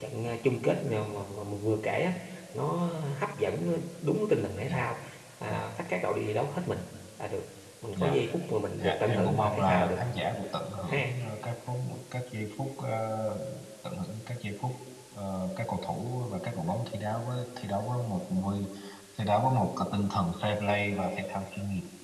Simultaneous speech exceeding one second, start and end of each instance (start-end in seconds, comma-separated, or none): 8.8-10.0